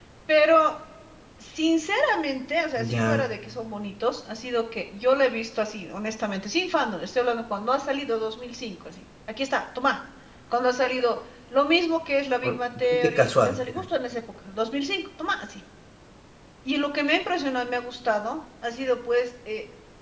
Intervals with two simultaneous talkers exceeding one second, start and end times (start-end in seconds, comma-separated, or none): 12.4-13.8